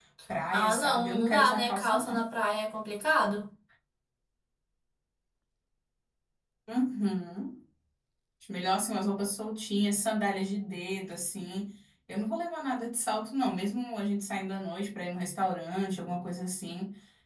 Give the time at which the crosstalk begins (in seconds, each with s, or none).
0.5 s